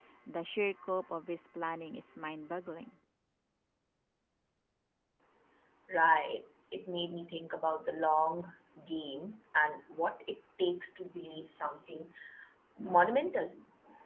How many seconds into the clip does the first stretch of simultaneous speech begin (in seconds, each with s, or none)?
none